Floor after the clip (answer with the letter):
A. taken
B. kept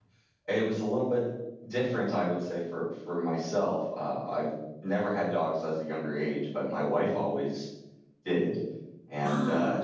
B